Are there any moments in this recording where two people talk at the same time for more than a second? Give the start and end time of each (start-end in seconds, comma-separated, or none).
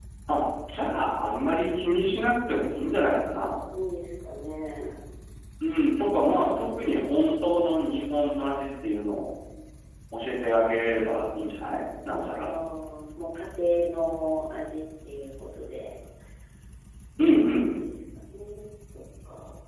none